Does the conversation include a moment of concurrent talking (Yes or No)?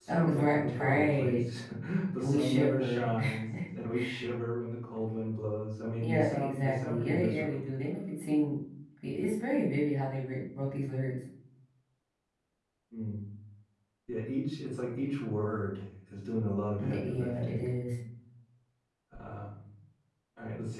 Yes